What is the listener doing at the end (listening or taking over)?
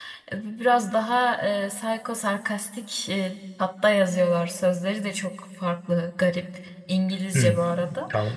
taking over